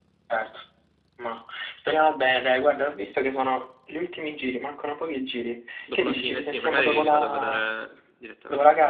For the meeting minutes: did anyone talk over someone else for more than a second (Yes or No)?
Yes